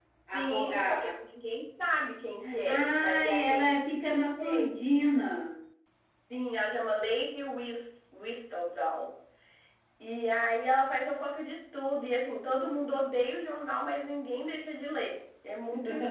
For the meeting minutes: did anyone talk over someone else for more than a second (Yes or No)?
Yes